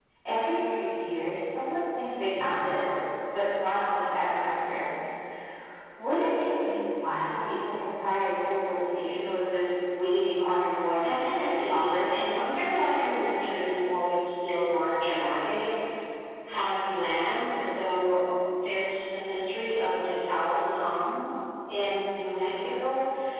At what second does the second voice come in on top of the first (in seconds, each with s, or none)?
11.0 s